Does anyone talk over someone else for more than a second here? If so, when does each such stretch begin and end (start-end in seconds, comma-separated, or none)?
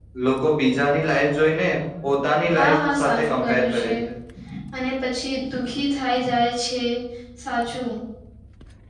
2.6-3.9